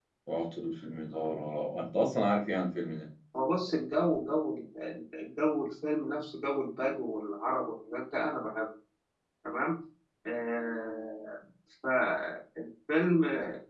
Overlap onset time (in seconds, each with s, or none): none